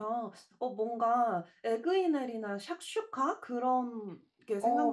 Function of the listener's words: taking over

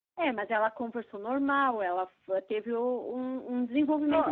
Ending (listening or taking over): taking over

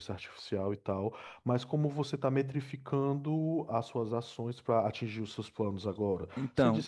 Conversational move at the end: listening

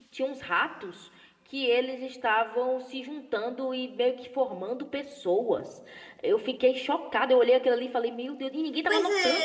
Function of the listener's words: taking over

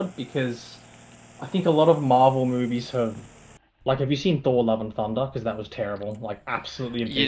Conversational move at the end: taking over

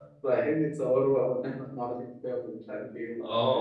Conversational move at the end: taking over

